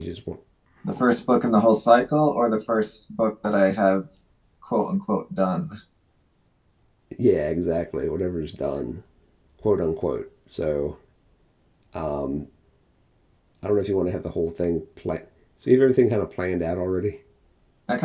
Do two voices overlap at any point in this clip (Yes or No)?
No